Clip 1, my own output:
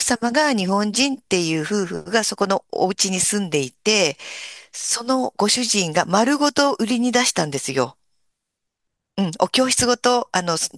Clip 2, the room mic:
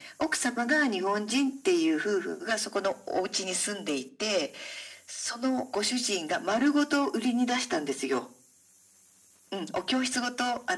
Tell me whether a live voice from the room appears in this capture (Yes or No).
No